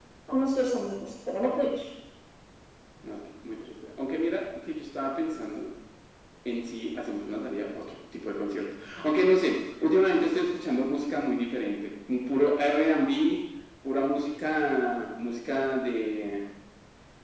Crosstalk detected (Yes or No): No